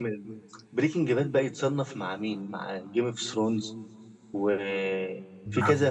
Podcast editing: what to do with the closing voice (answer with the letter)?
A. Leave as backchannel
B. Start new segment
A